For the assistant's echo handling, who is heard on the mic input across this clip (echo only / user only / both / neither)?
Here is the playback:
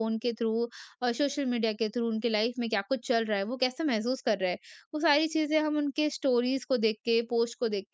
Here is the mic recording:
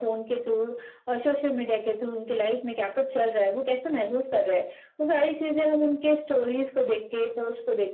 echo only